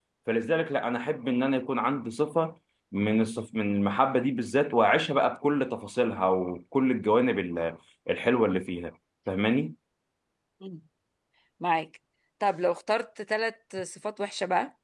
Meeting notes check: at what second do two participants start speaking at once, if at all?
none

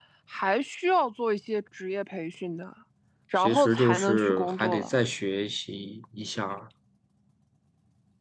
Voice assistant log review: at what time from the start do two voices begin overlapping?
3.4 s

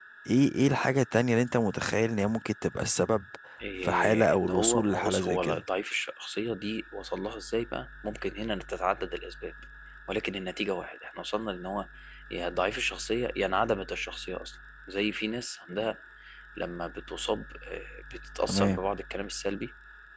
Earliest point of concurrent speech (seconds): 3.8 s

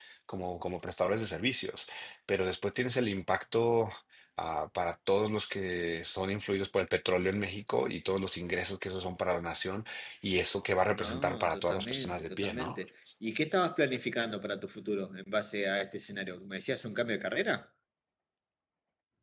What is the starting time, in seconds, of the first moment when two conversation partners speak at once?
10.9 s

